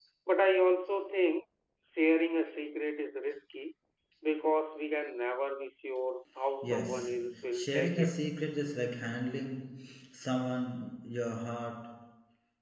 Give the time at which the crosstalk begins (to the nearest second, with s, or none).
7 s